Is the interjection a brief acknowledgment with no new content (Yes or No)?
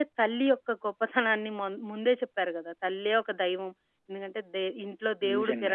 Yes